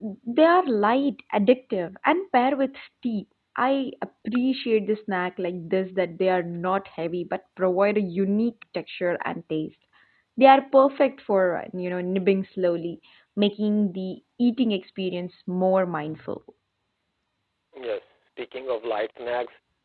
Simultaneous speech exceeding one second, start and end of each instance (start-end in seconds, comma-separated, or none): none